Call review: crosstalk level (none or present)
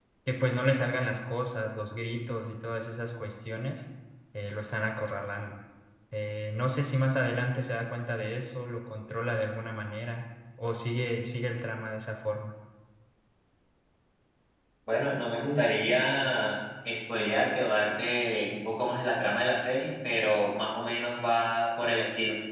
none